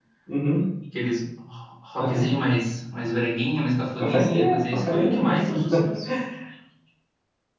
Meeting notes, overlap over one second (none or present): present